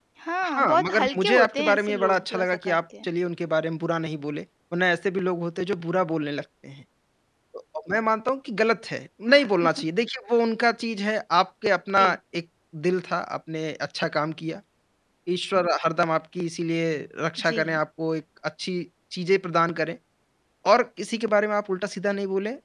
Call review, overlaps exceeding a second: present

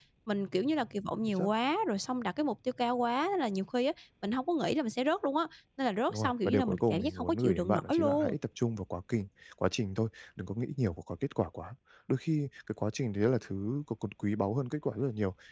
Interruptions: present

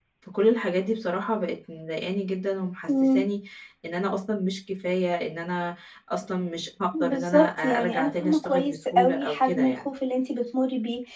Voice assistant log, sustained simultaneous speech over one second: present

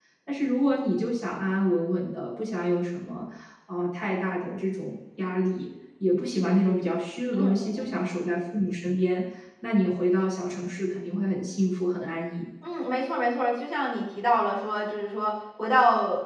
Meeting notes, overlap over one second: none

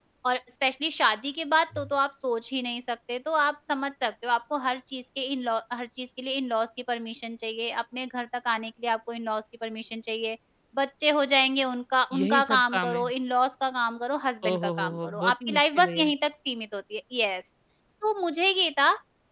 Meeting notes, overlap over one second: present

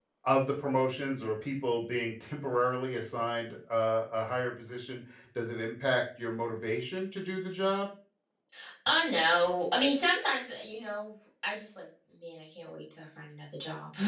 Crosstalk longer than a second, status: none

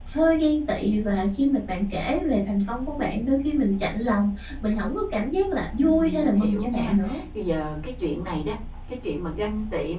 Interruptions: present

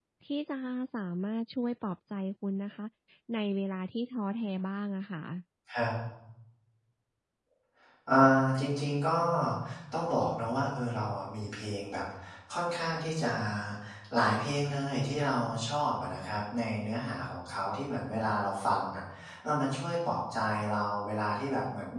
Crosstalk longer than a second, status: none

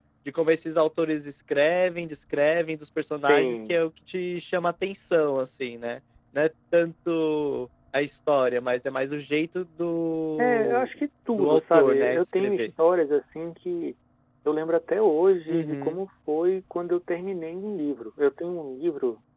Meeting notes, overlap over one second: present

